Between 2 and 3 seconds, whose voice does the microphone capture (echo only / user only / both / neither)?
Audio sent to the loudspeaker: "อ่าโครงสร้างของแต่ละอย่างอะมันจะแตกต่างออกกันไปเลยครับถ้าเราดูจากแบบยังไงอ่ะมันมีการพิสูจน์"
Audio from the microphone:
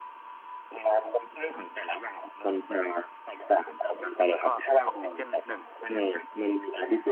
echo only